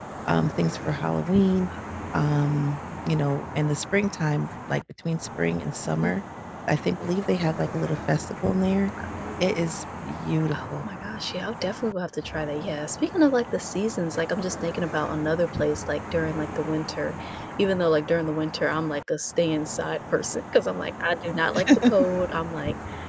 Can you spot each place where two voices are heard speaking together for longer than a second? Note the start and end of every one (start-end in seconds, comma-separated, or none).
none